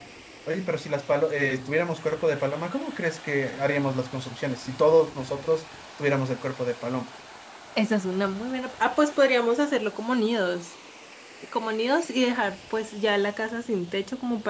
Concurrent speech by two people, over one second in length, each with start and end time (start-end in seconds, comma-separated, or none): none